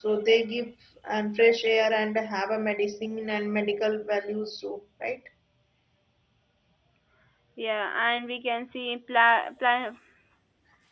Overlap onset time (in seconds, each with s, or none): none